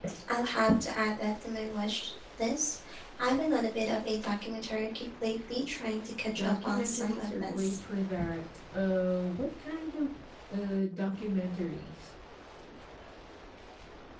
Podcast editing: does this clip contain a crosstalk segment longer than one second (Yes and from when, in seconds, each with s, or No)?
Yes, from 6.3 s